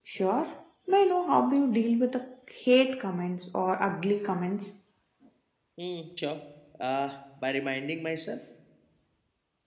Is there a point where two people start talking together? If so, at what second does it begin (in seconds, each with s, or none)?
none